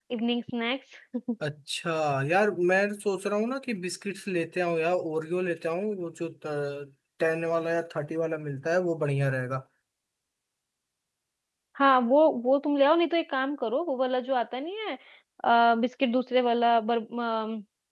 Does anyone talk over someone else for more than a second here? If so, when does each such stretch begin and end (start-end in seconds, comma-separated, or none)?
none